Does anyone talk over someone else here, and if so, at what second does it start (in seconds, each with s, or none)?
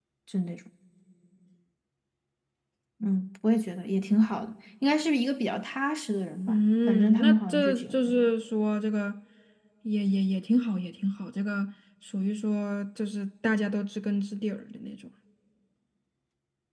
6.5 s